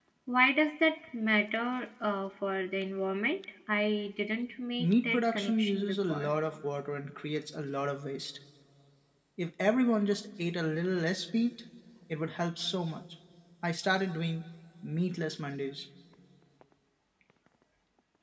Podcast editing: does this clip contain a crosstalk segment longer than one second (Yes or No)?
Yes